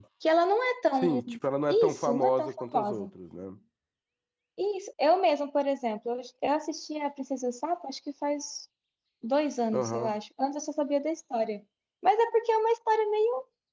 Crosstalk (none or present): present